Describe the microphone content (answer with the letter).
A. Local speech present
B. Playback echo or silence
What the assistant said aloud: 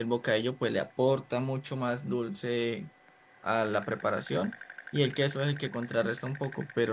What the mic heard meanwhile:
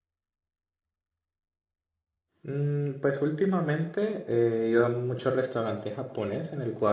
A